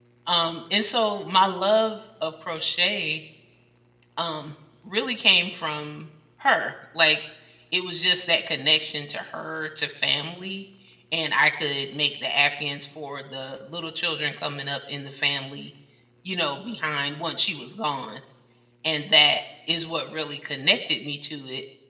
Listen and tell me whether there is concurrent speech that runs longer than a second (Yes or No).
No